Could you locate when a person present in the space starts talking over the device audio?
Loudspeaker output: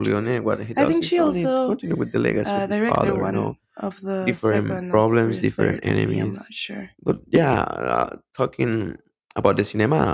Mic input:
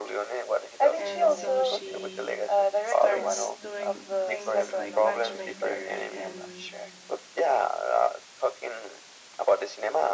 1 s

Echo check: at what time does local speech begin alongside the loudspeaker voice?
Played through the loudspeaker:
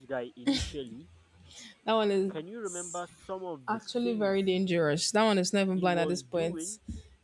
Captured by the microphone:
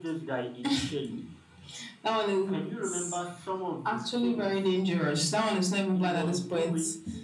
none

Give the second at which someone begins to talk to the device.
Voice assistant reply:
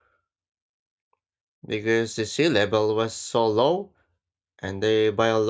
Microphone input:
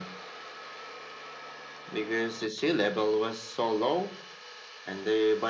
none

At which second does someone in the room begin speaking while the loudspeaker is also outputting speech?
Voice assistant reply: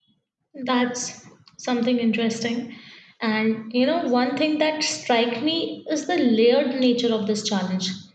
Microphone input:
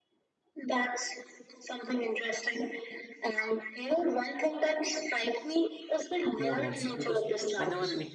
6 s

